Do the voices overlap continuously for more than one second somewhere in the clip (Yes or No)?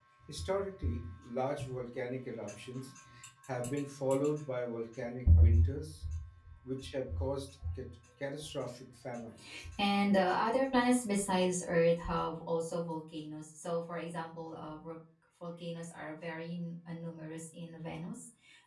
No